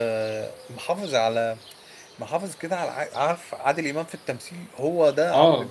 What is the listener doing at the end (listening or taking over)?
listening